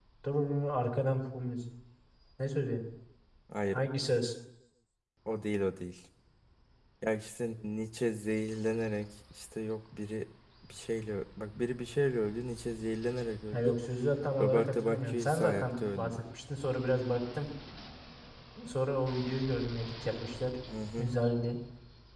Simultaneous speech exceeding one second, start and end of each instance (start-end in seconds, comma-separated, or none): 14.4-16.2